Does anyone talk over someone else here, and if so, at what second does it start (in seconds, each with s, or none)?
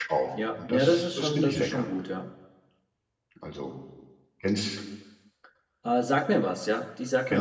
0.6 s